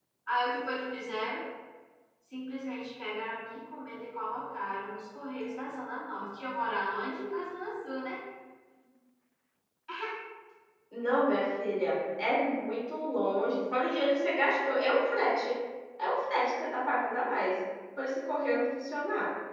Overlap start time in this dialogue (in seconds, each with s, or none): none